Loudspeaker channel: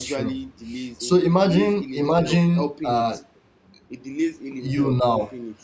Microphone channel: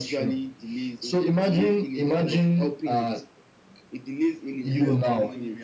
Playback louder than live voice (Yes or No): Yes